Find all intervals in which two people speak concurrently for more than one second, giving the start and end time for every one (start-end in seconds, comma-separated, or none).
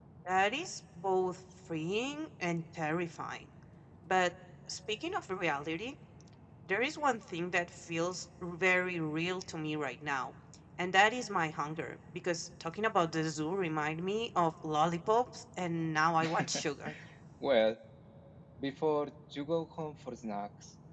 none